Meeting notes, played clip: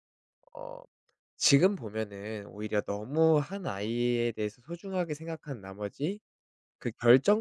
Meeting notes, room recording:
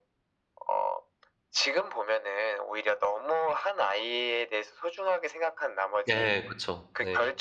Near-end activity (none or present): present